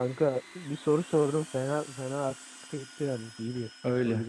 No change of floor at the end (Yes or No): No